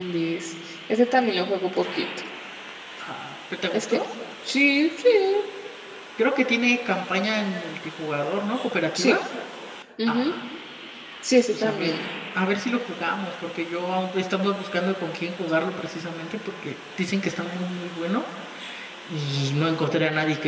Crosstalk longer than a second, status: none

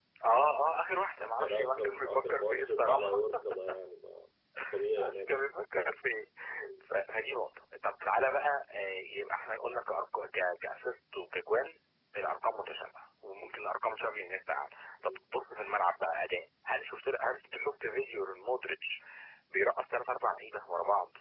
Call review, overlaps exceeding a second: present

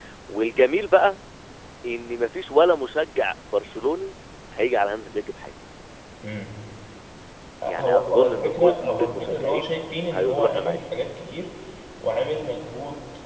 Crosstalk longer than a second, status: present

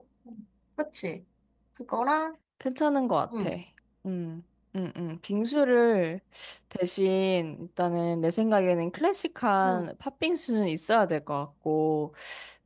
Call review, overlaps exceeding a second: none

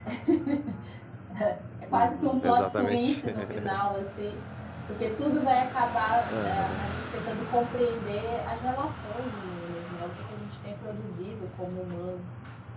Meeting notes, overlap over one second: present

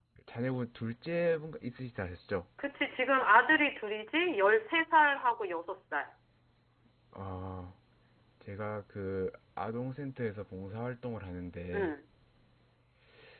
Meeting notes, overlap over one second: none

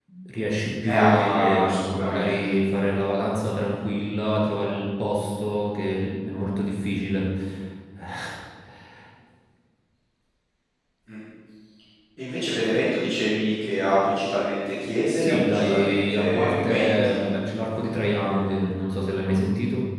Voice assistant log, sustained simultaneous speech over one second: present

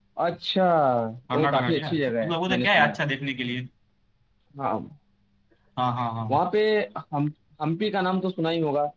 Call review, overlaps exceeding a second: present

